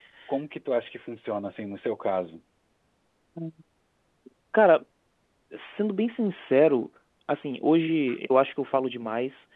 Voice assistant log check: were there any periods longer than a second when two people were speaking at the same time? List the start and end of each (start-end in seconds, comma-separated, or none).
none